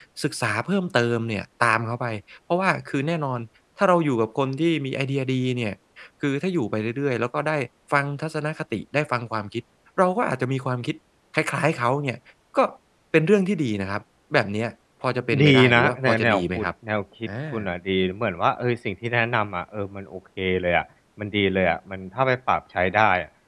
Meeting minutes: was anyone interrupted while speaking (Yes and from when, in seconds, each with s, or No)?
Yes, from 15.4 s